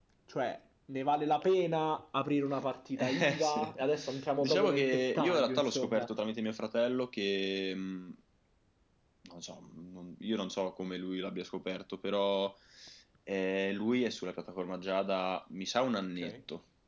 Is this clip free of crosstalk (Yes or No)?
No